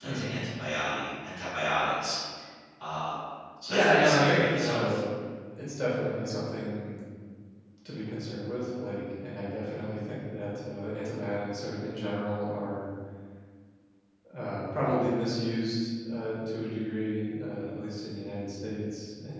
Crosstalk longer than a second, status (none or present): present